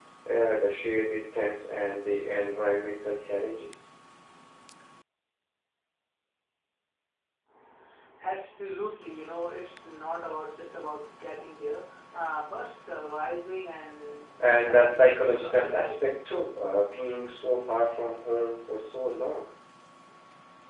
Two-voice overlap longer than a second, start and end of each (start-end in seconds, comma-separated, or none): 14.7-15.9